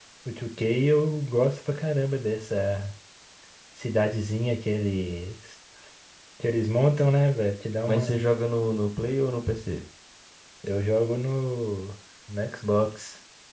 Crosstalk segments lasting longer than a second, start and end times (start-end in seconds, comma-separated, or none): none